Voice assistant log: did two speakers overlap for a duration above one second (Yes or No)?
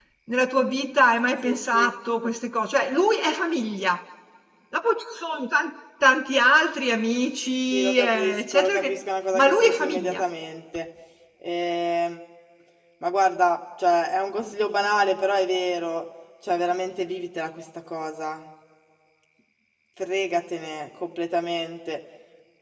Yes